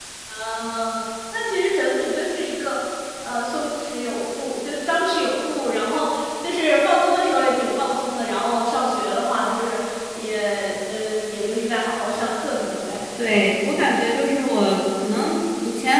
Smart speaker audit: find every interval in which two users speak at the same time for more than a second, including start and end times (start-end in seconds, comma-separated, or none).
none